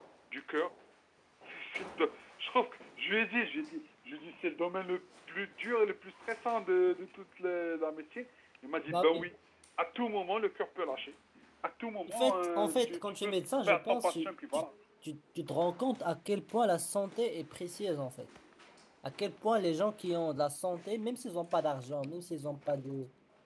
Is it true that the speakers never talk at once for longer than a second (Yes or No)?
No